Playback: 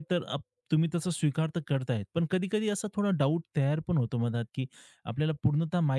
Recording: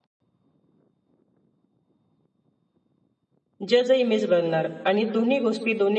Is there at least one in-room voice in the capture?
Yes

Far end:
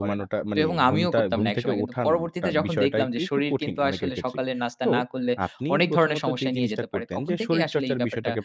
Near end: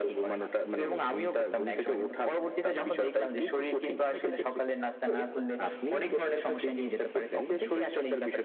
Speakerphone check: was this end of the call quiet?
Yes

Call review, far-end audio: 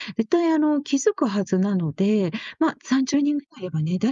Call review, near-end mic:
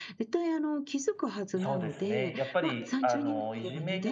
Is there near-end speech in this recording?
Yes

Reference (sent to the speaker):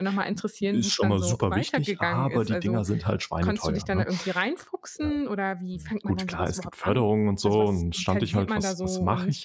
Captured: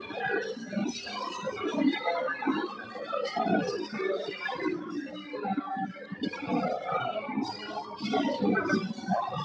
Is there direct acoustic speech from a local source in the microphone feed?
No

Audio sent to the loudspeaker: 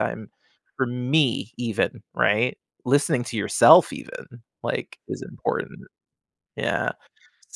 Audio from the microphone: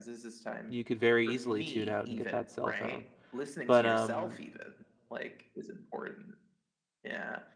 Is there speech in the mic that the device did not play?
Yes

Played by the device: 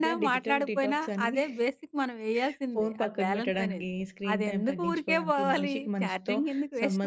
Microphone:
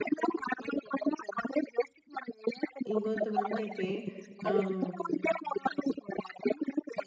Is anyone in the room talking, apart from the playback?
Yes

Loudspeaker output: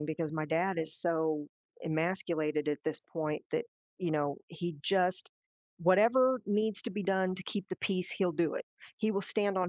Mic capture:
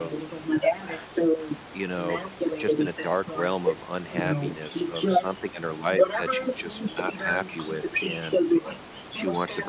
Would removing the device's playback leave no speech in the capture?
No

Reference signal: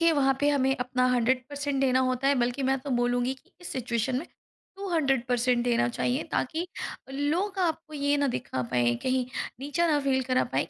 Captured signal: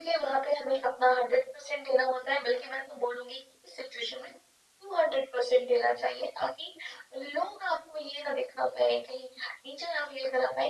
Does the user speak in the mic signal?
No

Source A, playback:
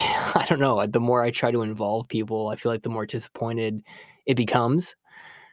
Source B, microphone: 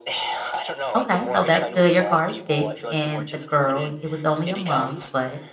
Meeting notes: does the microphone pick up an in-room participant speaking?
Yes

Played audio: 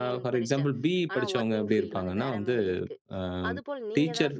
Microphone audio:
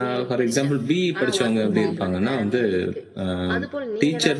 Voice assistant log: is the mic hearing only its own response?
No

